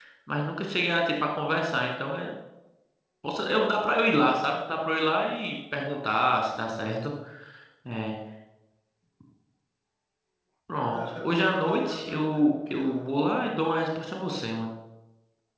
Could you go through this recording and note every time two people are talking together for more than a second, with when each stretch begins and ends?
10.9-13.1

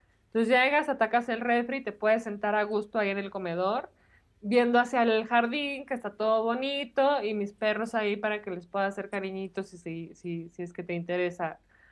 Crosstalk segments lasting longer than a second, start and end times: none

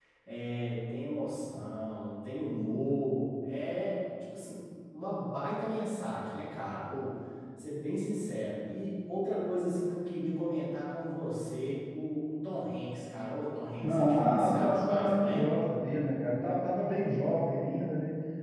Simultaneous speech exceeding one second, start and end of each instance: 13.8-15.4

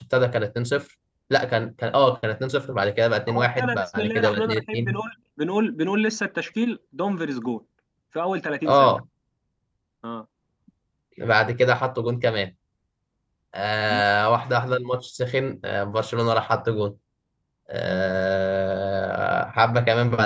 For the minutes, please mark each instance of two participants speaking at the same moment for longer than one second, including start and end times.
3.3-5.0

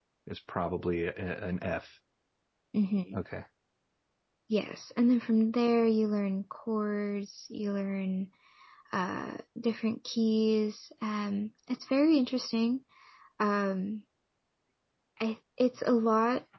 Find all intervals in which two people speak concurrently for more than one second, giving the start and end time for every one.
none

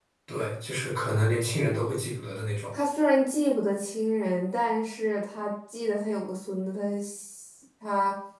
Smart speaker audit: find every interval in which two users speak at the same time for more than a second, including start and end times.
none

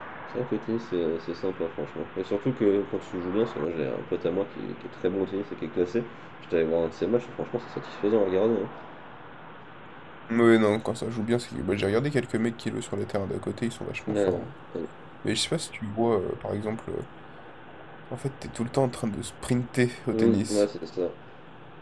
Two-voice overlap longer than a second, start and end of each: none

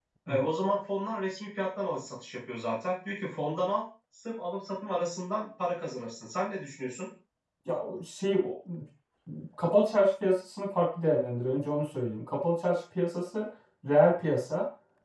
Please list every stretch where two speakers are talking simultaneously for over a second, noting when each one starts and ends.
none

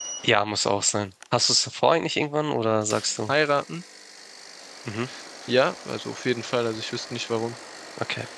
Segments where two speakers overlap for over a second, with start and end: none

